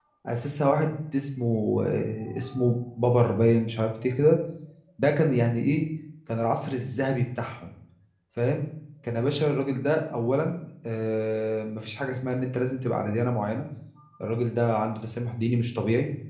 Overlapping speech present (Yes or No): No